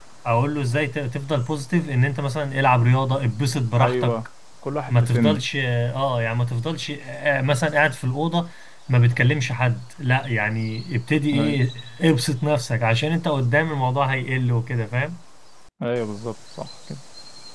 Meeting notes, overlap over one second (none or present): none